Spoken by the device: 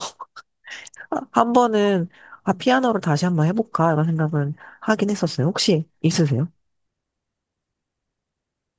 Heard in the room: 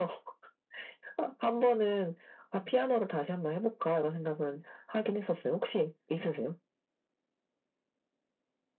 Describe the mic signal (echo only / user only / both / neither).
echo only